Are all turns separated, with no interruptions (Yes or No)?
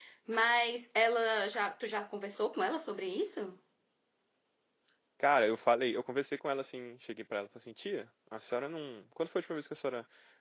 Yes